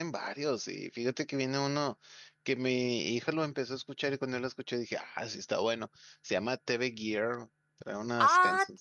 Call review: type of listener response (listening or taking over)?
listening